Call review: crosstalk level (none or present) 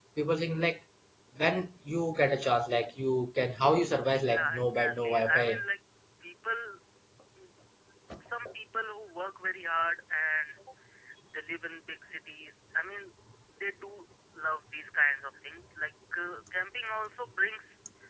present